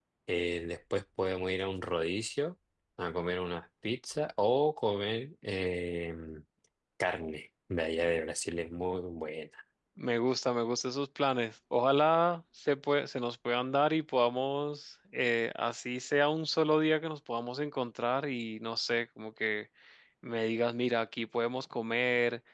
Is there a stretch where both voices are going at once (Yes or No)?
No